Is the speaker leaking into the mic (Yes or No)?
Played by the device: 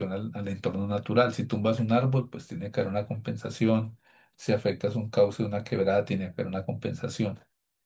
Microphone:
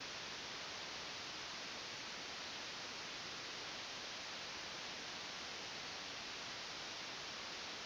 No